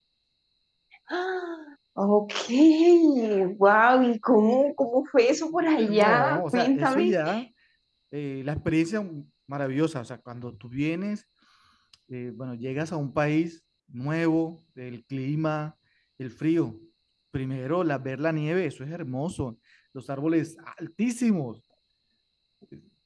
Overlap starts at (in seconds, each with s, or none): 5.9 s